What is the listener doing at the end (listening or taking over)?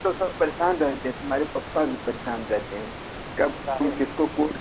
listening